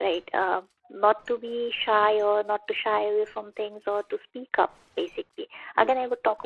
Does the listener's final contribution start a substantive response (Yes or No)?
No